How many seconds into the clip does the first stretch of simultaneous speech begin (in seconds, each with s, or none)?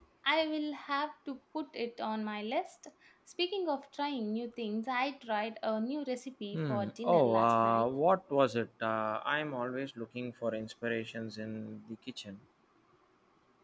6.5 s